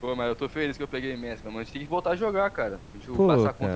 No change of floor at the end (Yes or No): No